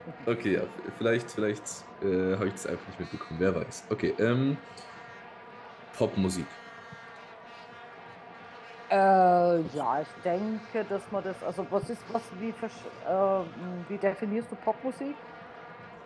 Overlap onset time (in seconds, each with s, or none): none